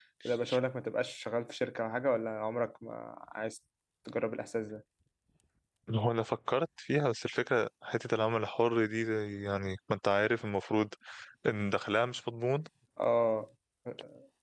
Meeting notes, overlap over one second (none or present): none